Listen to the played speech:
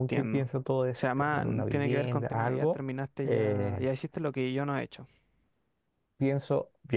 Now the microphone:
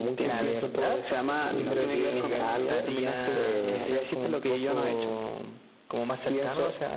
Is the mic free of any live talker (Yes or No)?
No